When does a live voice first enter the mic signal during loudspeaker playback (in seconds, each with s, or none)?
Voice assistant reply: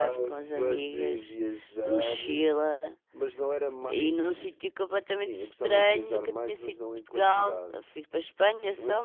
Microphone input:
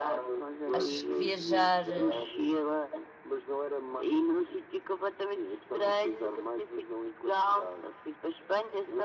0.7 s